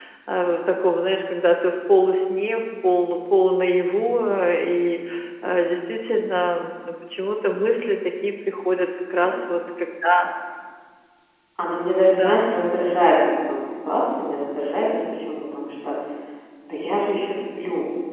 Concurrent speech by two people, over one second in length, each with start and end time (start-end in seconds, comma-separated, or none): none